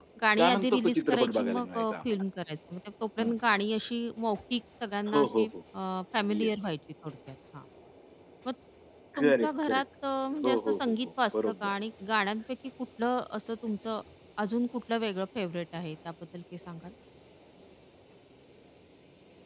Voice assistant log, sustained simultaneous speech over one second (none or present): present